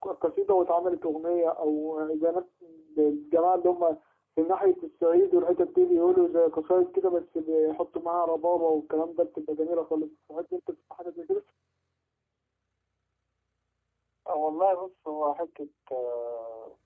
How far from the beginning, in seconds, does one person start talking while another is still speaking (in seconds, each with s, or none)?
none